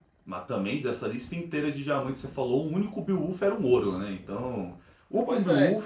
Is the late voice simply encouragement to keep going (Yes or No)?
Yes